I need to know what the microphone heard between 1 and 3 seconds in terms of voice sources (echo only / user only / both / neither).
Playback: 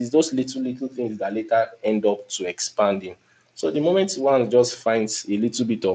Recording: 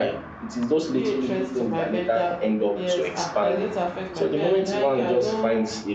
both